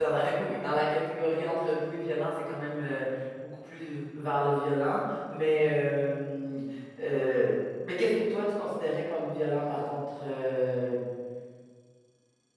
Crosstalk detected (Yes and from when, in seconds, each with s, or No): No